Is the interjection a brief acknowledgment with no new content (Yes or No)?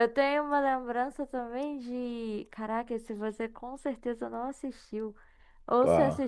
Yes